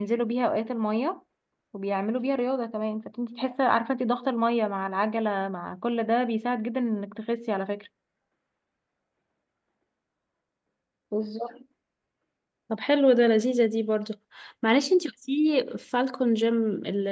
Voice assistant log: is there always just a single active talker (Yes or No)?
Yes